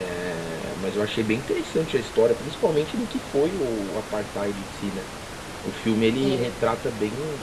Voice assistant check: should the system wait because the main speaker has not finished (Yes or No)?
Yes